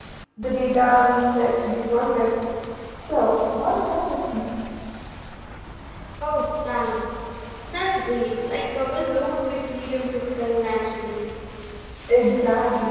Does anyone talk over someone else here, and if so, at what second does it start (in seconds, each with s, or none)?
none